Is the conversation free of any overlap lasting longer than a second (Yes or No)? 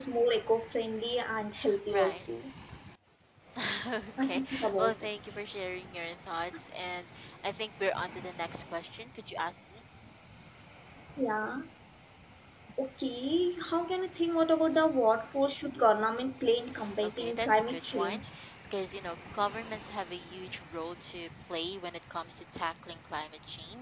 No